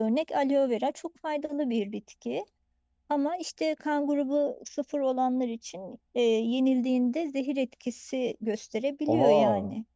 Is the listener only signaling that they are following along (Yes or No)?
Yes